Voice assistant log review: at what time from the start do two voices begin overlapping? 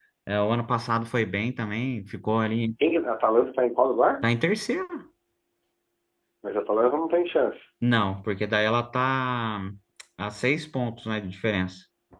none

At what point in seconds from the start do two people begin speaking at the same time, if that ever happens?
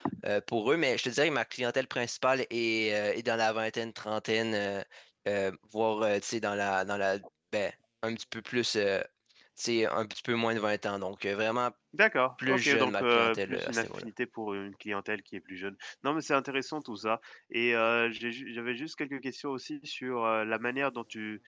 12.5 s

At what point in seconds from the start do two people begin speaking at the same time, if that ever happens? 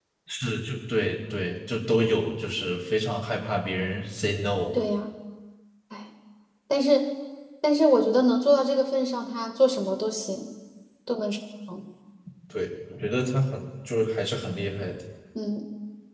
none

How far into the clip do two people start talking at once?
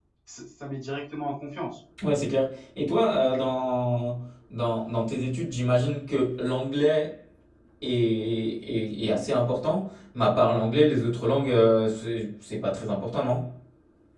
none

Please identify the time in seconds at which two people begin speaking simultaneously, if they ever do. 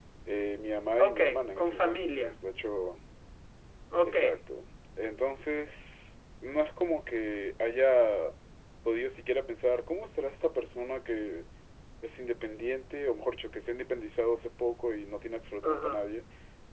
1.0 s

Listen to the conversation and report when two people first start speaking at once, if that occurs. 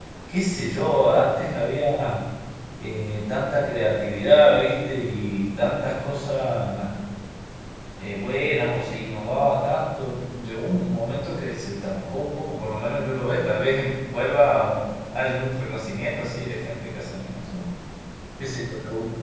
none

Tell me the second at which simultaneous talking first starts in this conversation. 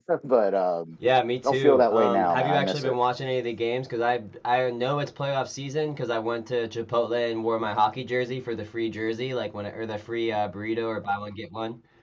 1.4 s

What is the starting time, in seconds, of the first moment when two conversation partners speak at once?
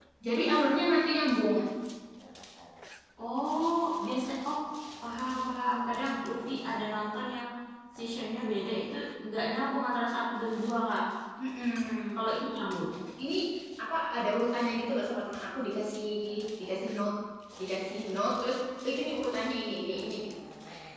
none

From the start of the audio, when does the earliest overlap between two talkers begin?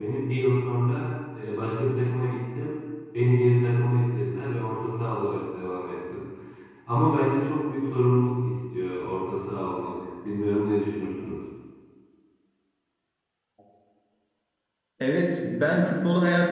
none

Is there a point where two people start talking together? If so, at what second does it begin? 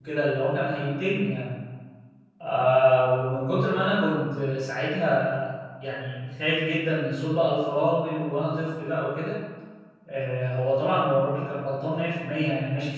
none

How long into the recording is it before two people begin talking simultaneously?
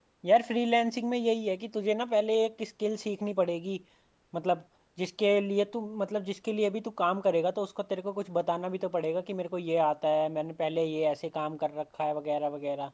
none

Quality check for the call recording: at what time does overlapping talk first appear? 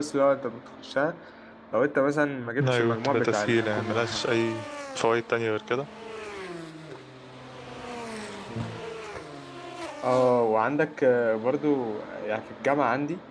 2.6 s

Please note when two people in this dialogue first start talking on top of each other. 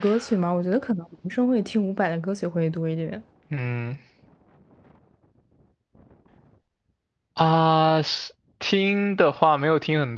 none

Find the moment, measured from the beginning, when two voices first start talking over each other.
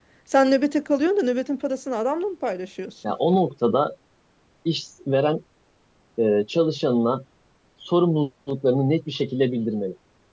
none

